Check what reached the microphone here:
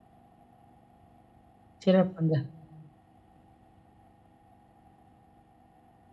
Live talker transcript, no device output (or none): சிறப்புங்க.